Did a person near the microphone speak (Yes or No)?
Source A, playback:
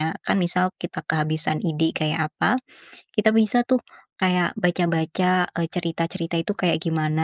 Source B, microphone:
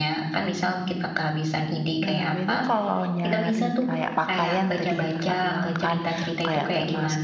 Yes